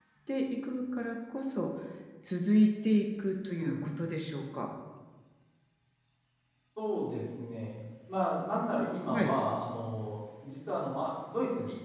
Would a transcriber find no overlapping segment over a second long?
Yes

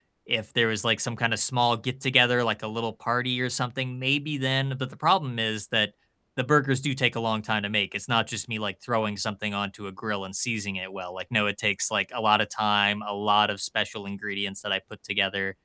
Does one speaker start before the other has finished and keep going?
No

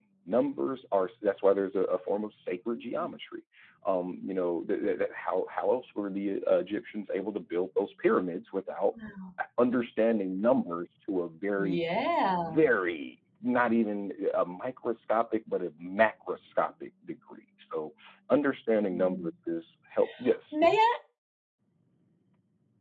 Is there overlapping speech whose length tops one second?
No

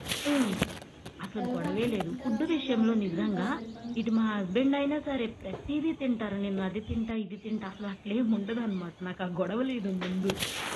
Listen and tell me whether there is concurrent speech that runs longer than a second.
Yes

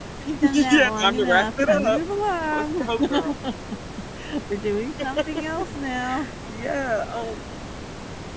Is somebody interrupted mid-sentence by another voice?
Yes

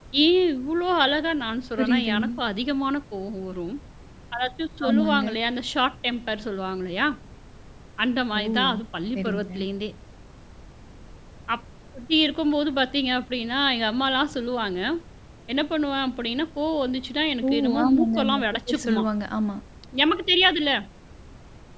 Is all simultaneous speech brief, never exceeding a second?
No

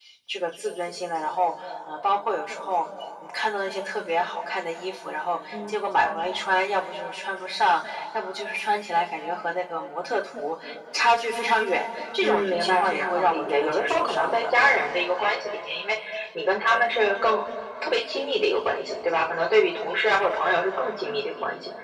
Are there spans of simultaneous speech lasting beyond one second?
Yes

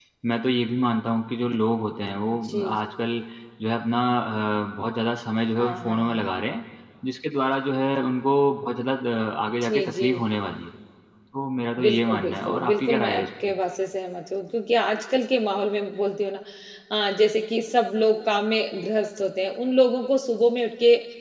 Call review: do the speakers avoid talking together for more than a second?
No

